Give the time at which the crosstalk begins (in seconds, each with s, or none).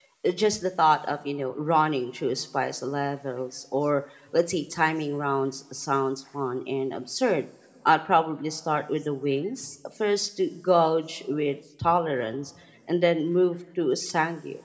none